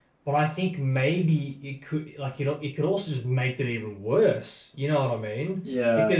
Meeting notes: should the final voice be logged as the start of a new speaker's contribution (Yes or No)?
No